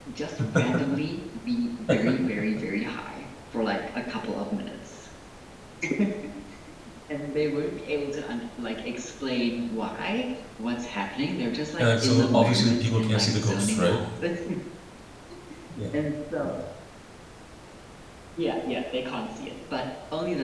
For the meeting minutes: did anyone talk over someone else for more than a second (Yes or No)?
Yes